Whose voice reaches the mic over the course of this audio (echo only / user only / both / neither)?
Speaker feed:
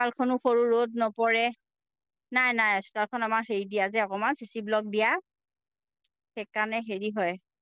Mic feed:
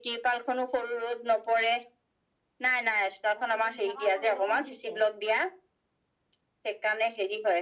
both